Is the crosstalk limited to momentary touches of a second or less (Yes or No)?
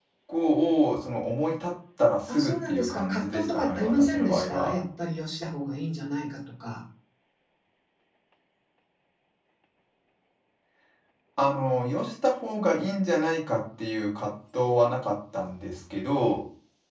No